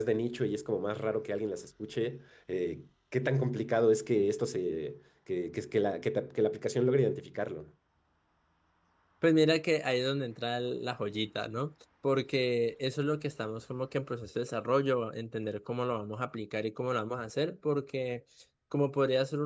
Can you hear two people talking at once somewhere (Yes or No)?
No